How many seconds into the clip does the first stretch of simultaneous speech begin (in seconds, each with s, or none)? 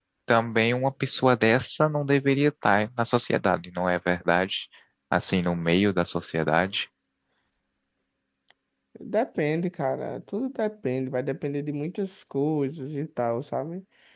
none